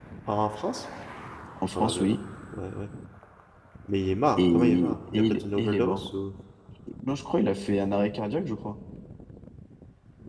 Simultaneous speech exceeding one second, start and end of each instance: 4.4-6.1

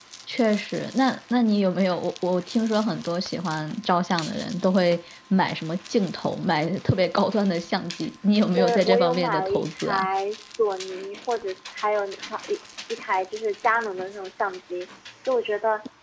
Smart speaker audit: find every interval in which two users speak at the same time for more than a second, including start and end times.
8.4-10.1

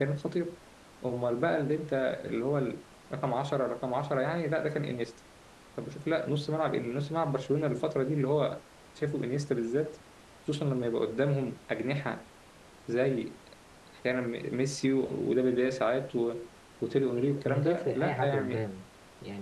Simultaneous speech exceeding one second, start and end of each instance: 17.2-18.6

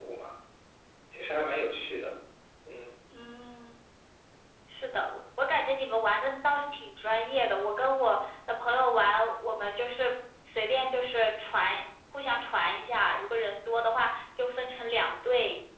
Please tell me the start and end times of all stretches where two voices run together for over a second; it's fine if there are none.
none

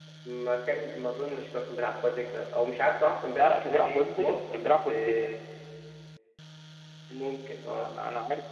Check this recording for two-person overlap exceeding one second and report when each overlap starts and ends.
3.4-5.3

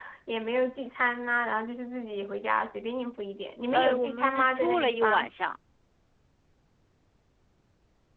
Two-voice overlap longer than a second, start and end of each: 3.7-5.3

